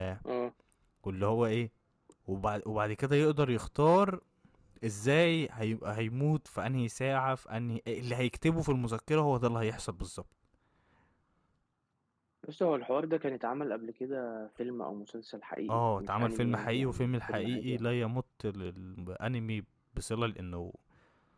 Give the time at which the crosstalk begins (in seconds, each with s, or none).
15.7 s